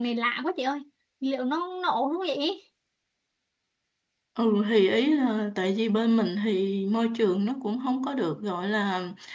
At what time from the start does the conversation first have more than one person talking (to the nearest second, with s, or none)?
none